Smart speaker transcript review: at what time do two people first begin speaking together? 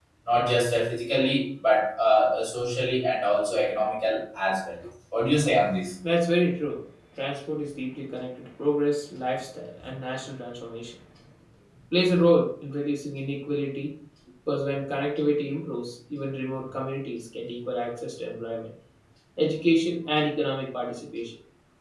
none

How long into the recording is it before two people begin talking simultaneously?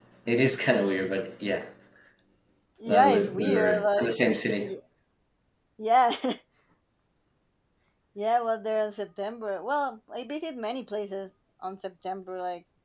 2.9 s

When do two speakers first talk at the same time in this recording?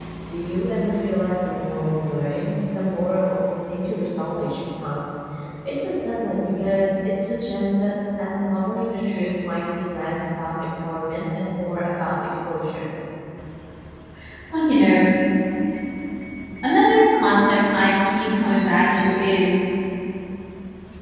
none

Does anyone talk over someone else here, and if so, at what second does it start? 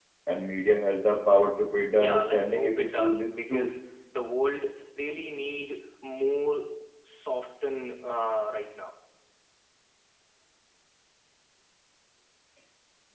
1.9 s

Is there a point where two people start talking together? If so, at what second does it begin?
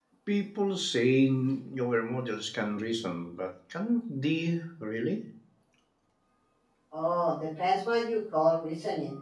none

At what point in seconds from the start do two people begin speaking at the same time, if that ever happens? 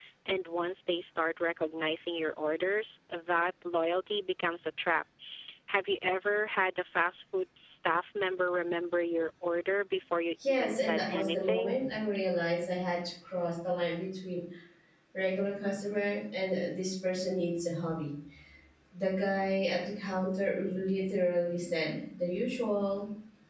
10.4 s

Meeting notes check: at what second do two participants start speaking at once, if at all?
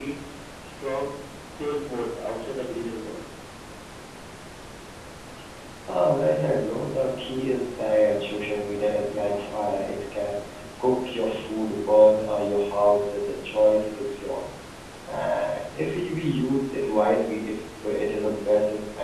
none

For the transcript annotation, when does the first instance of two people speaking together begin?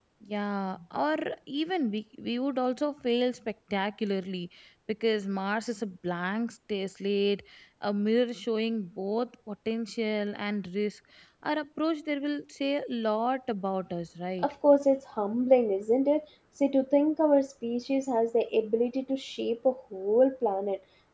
none

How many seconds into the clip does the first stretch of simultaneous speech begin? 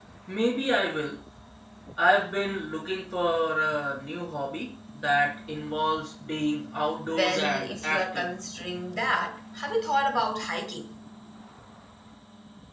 7.1 s

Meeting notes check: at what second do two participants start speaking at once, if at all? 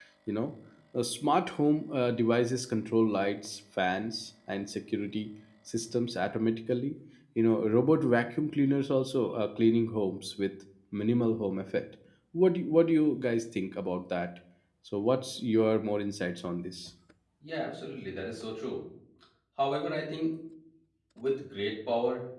none

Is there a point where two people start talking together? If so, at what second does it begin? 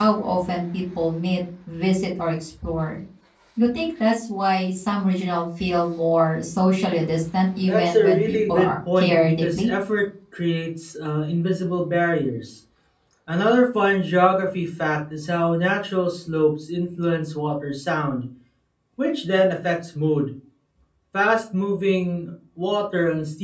7.7 s

